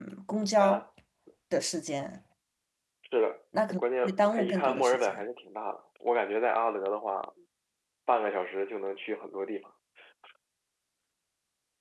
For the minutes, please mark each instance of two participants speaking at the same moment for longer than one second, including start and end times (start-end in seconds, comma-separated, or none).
3.7-5.2